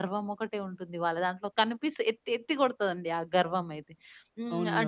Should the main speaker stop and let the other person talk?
No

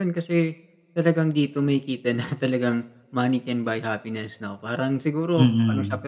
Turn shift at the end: No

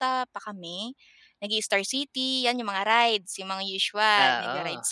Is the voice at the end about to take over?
No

